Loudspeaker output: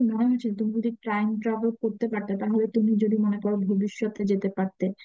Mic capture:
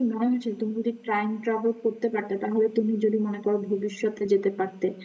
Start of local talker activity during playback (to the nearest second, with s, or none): none